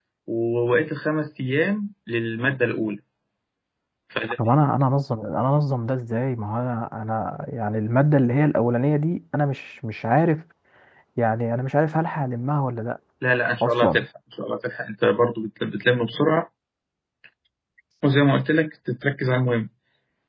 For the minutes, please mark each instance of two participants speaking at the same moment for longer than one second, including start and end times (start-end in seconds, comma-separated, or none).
none